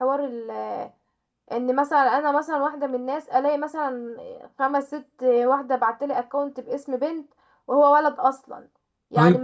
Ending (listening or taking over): listening